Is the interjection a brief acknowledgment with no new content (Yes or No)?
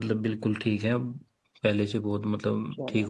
No